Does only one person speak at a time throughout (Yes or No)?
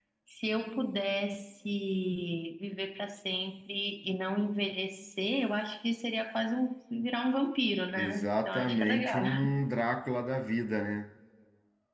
No